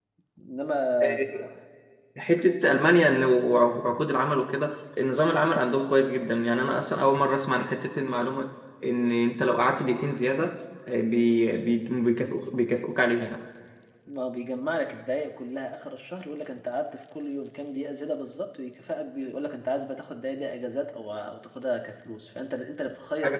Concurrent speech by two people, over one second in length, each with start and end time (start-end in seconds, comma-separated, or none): none